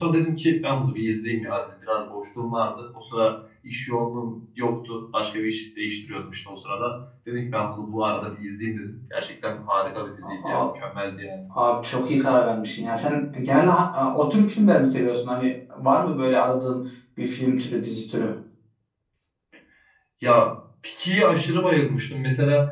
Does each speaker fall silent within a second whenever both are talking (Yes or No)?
Yes